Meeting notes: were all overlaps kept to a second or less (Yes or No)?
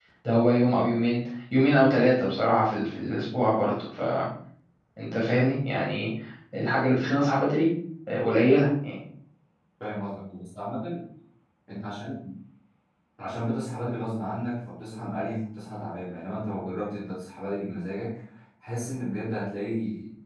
Yes